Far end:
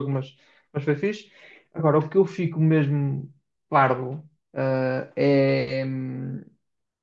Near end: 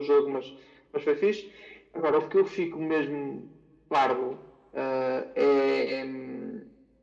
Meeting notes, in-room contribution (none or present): none